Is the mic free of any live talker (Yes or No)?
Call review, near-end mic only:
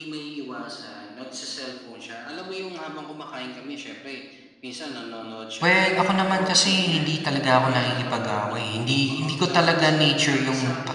No